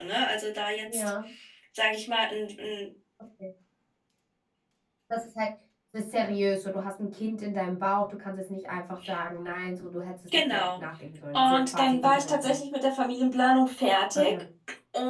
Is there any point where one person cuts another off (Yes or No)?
Yes